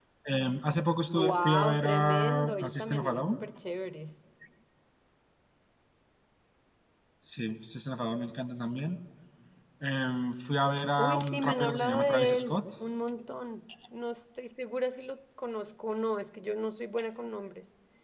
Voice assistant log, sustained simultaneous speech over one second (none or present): present